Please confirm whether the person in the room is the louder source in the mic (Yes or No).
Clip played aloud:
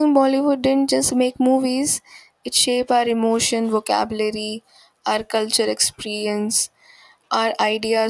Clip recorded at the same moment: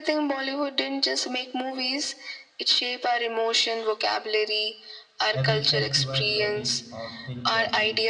No